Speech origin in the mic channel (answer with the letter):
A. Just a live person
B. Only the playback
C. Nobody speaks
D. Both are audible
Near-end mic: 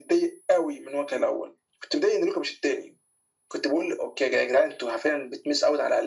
B